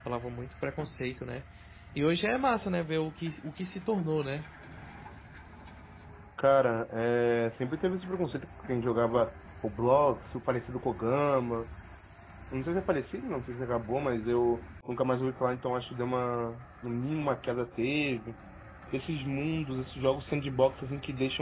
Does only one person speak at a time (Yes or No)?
Yes